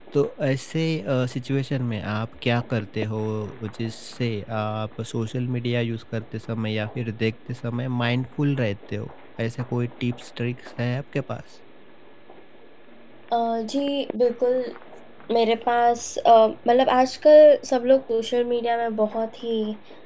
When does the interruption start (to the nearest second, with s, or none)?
none